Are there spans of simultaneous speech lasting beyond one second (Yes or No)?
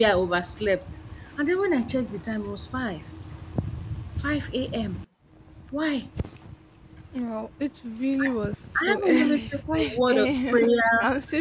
Yes